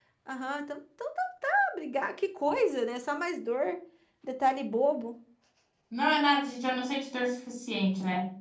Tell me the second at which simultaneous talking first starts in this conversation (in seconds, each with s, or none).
none